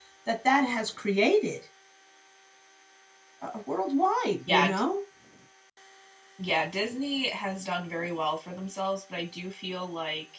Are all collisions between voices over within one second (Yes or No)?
Yes